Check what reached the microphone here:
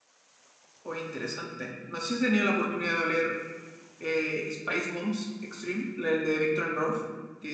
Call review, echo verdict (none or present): none